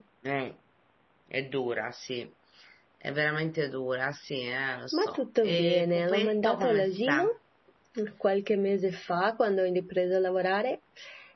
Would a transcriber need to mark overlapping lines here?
Yes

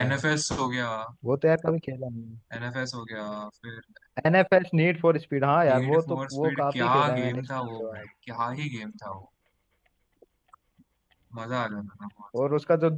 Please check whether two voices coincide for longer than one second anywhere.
Yes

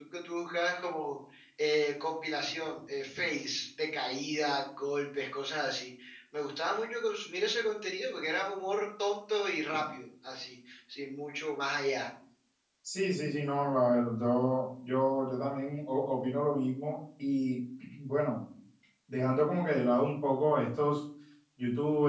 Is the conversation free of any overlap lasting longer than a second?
Yes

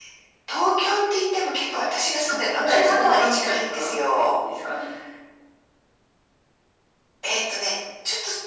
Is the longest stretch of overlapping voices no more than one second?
No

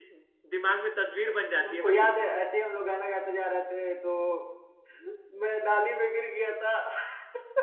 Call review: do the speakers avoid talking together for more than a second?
Yes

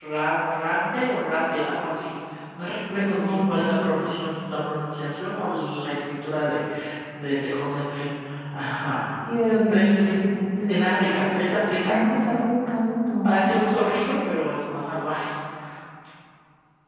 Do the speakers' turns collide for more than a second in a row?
Yes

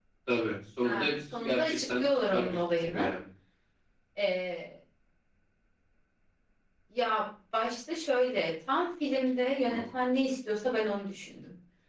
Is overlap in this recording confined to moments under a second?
No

